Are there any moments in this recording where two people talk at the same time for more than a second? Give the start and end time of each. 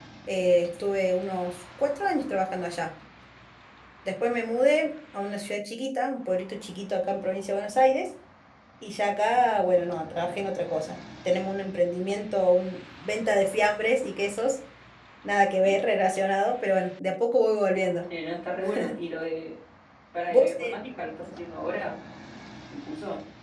none

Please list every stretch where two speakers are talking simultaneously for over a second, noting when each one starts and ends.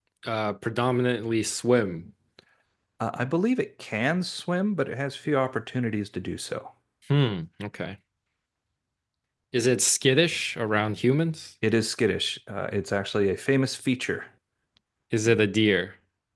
none

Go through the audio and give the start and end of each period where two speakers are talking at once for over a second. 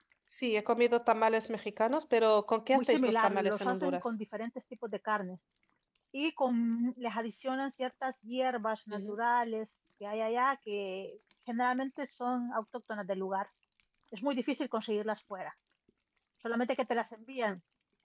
2.7-4.1

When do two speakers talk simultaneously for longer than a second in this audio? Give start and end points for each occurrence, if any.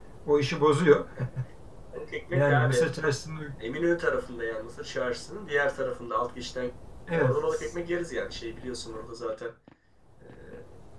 none

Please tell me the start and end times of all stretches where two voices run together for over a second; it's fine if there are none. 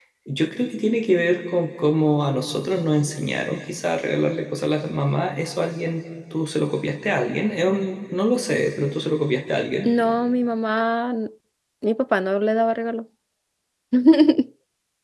none

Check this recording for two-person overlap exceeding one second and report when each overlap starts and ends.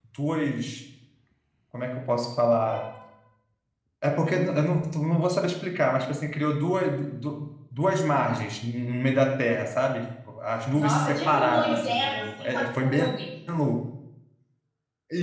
10.7-13.1

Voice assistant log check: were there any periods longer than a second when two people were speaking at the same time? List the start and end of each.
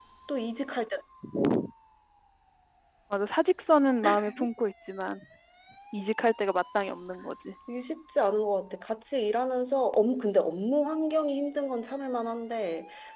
none

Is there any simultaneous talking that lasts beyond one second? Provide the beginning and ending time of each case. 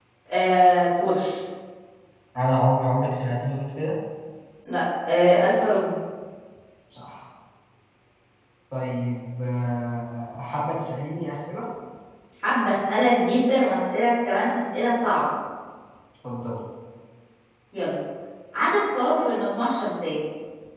none

